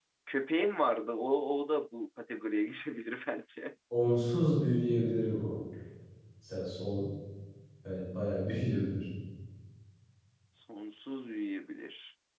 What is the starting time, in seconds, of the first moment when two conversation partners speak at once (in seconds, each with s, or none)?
none